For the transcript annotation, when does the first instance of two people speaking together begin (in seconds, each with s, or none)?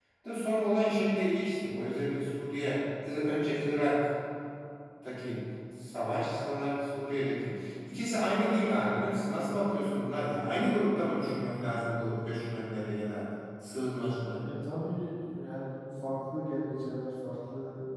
none